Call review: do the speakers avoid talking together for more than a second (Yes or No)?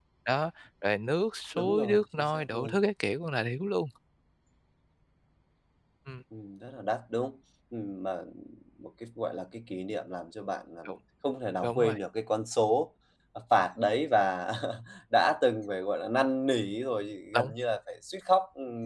No